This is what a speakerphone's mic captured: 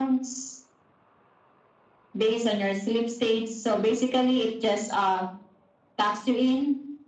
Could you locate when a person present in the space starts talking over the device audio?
none

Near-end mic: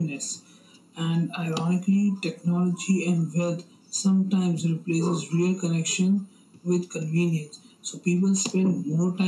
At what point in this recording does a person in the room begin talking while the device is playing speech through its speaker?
none

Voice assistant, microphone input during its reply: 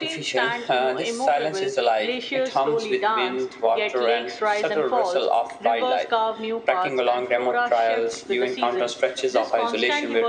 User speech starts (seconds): none

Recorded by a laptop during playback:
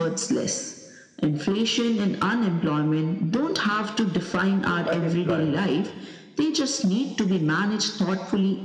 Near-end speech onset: 4.7 s

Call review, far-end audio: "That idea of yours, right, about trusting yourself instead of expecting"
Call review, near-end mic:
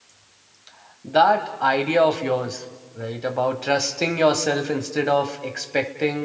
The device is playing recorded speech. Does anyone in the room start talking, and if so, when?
none

